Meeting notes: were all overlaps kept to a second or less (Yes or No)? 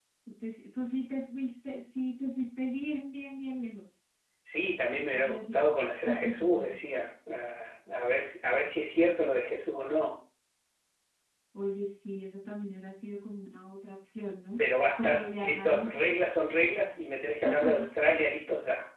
No